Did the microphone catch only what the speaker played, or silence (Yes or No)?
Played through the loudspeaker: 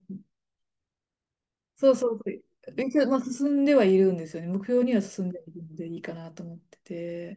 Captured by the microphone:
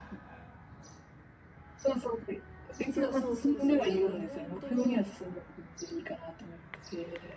No